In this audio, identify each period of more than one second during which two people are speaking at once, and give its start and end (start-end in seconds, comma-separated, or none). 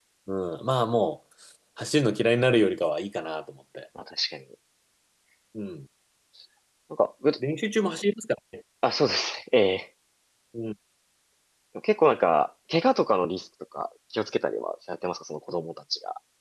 none